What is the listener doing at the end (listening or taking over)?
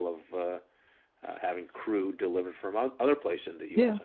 listening